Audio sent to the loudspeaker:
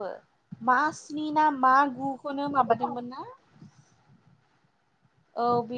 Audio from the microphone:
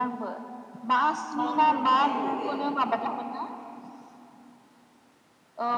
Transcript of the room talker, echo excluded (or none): मा होनदोंमोनथाय लोगो